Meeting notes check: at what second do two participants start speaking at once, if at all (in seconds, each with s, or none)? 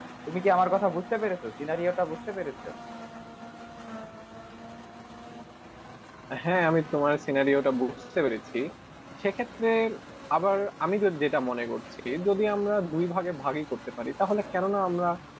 none